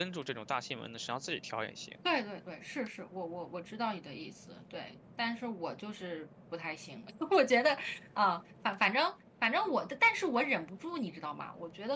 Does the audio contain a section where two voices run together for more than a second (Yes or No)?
No